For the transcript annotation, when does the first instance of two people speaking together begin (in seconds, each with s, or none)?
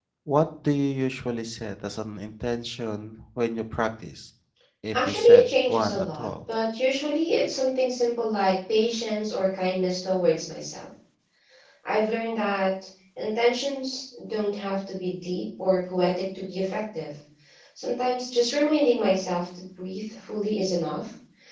4.9 s